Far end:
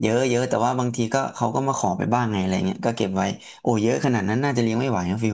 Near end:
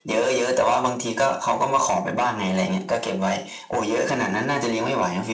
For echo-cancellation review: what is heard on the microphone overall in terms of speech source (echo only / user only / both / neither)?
echo only